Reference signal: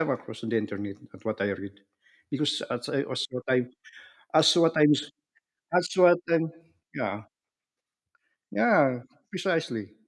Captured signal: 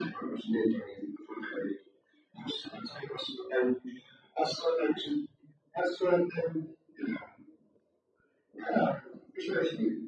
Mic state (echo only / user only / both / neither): echo only